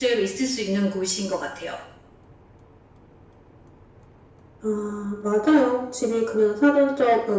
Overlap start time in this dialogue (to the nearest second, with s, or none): none